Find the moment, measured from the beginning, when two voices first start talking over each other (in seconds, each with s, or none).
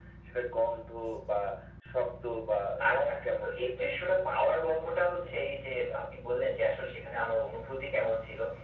2.8 s